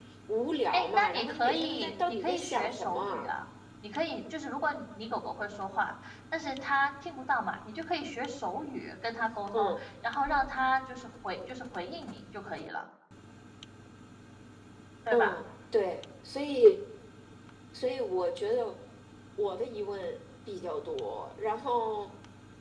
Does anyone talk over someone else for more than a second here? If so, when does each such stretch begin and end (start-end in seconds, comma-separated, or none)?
0.7-3.3